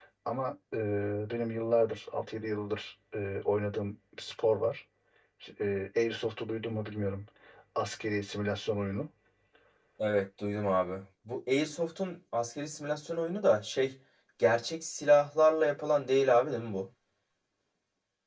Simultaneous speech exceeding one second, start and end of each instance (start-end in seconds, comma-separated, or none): none